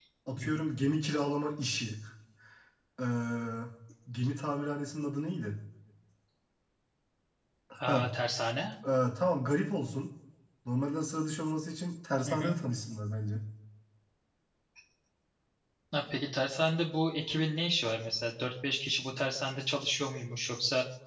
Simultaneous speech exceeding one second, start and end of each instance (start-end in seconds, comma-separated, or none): none